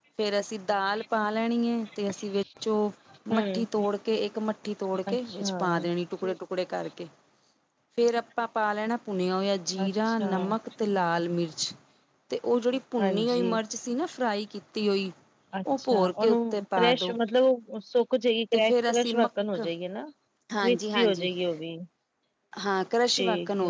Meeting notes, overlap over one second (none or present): present